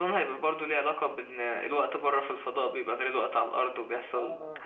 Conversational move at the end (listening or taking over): taking over